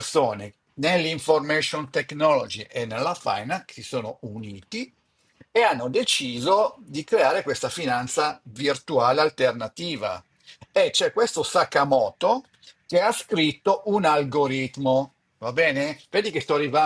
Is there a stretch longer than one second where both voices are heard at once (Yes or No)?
No